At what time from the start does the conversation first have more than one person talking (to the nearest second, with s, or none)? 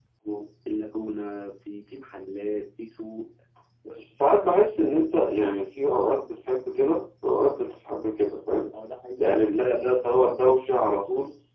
none